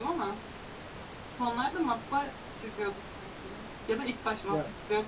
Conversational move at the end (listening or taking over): taking over